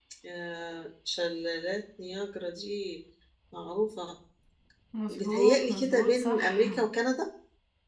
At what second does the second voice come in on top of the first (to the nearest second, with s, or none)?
5 s